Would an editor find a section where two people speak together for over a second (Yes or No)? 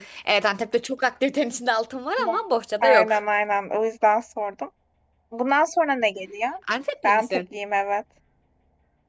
No